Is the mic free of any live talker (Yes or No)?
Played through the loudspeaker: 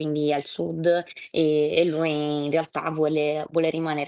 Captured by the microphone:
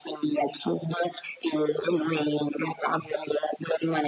Yes